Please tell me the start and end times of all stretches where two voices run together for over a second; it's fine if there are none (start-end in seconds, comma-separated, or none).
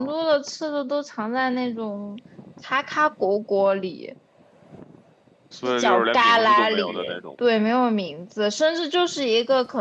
5.6-7.2